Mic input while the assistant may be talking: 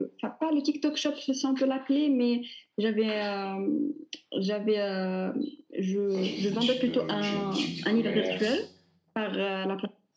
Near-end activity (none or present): present